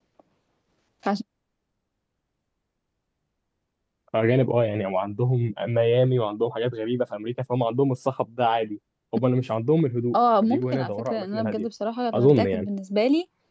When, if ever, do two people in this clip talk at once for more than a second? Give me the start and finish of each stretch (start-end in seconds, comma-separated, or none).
10.4-11.7